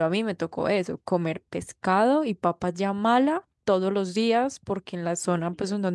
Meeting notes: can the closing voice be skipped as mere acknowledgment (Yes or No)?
Yes